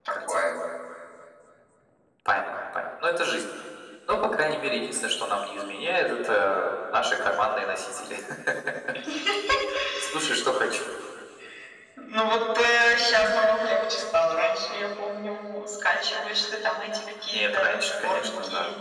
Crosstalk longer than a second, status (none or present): present